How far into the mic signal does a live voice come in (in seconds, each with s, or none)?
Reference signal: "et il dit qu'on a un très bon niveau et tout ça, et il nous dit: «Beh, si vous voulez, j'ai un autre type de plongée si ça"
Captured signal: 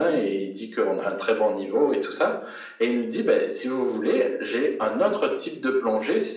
none